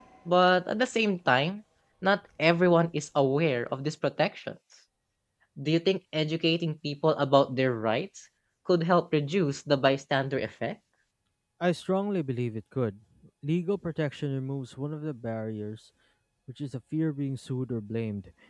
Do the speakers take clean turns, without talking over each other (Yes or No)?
Yes